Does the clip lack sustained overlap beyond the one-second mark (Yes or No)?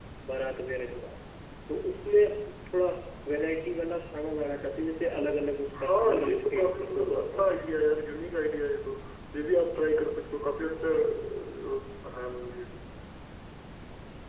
No